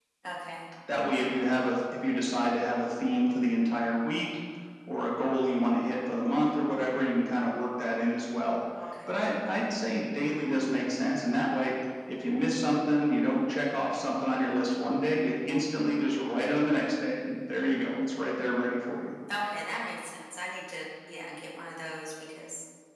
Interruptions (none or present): none